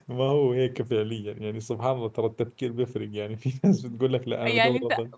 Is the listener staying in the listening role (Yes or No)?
No